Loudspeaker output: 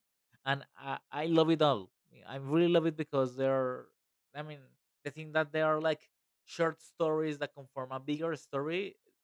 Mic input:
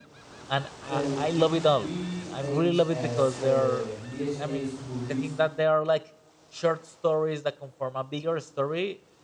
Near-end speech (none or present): present